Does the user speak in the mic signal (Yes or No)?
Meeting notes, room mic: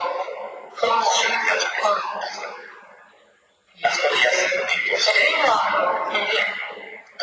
No